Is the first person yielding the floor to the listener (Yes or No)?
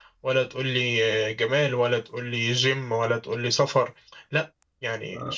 Yes